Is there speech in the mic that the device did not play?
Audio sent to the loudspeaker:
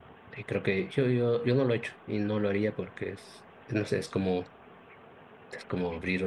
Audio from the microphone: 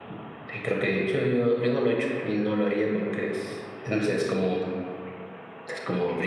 No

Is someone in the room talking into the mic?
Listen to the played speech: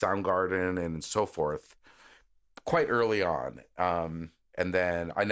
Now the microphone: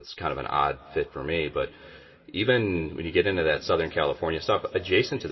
Yes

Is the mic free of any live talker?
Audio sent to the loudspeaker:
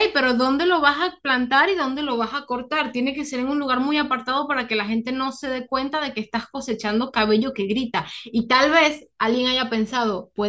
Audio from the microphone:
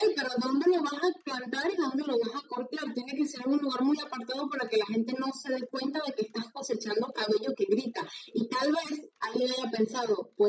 Yes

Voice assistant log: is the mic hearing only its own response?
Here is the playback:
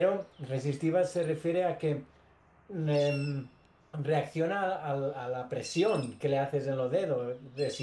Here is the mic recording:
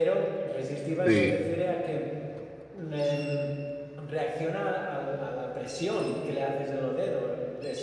No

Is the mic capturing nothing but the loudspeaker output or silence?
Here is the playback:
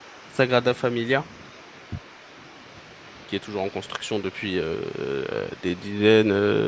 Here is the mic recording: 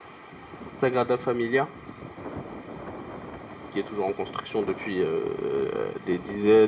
Yes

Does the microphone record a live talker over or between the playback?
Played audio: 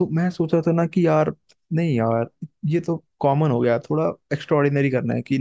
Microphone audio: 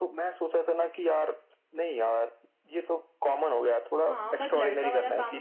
Yes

